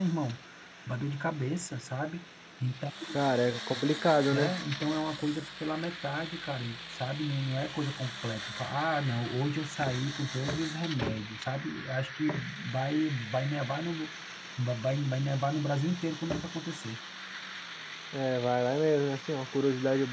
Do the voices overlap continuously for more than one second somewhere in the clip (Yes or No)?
No